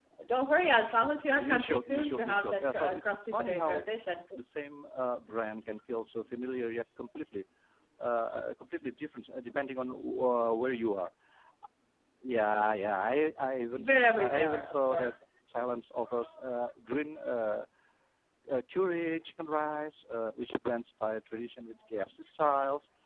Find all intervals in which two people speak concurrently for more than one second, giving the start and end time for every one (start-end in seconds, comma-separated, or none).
1.4-3.8, 13.8-15.1